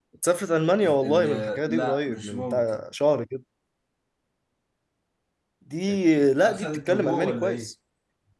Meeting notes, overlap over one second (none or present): present